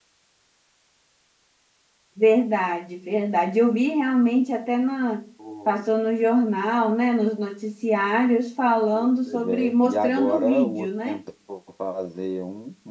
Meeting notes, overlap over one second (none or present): present